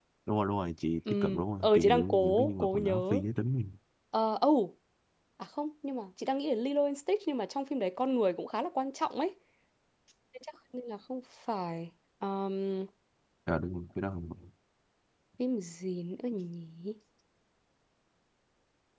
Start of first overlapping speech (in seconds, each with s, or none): 1.1 s